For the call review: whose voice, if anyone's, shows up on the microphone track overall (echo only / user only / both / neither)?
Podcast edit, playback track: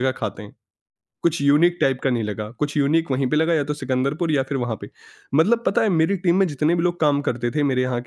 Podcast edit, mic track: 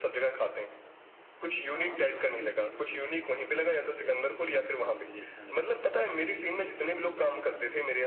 both